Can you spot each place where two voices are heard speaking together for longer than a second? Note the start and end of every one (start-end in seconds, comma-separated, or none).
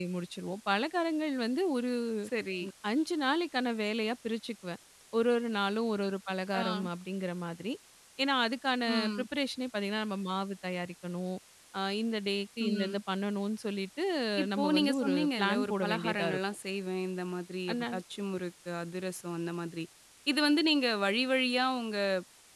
14.6-16.4